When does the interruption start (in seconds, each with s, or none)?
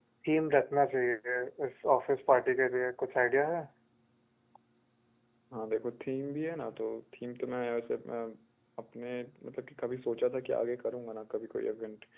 none